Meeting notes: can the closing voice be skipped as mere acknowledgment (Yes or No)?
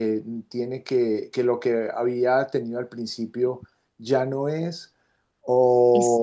Yes